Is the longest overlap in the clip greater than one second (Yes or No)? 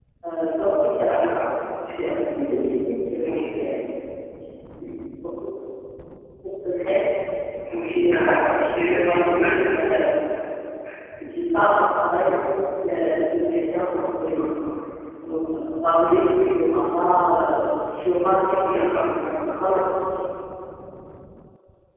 Yes